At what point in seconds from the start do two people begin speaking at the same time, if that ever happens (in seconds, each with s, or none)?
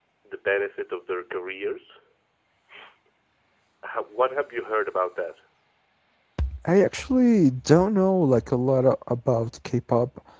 none